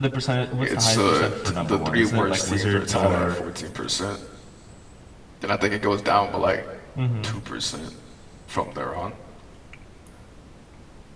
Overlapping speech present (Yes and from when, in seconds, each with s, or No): Yes, from 0.6 s